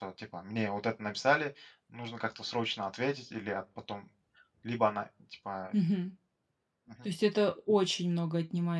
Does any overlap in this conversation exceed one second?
No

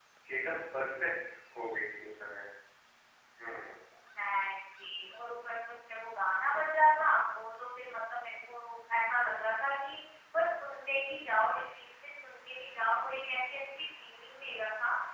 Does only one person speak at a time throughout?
Yes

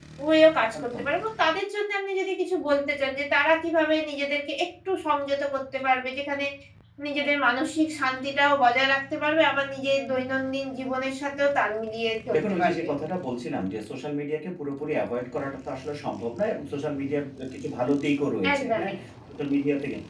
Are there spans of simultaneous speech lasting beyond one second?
No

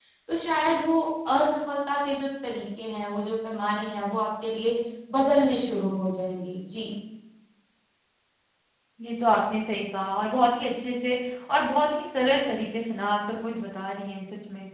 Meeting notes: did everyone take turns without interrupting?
Yes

